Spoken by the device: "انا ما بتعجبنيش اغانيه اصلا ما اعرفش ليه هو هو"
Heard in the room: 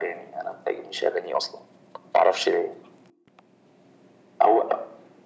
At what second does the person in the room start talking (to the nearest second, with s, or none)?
none